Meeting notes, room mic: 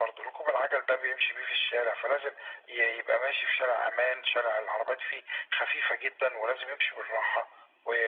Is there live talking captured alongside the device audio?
No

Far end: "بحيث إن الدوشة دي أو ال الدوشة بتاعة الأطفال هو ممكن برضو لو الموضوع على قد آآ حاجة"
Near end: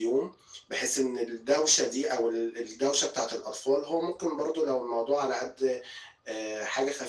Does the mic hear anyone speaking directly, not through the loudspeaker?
No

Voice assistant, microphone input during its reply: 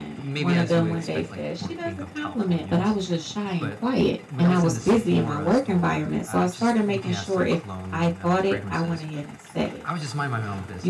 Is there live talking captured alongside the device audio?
Yes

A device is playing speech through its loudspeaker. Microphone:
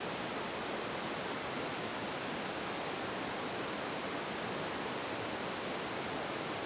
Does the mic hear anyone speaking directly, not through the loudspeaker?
No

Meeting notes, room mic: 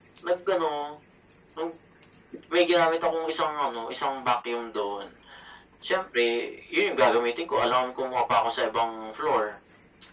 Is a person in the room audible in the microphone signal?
No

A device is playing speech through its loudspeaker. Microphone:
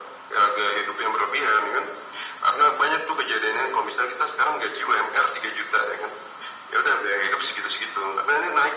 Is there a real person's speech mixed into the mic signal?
No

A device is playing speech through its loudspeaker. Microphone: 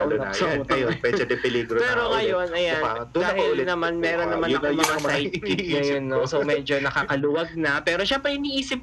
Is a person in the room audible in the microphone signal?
No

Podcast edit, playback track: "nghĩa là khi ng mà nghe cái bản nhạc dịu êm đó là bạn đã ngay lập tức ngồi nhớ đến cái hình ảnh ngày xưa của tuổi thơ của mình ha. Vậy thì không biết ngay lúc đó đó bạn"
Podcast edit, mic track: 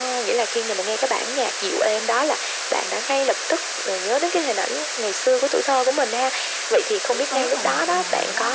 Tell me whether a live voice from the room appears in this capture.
Yes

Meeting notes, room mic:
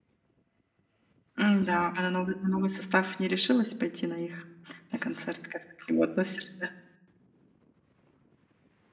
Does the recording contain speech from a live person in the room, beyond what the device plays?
Yes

